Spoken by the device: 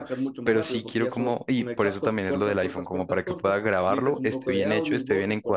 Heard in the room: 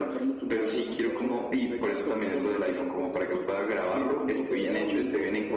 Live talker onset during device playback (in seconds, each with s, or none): none